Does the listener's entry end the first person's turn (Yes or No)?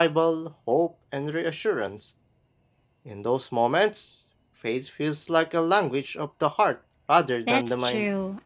Yes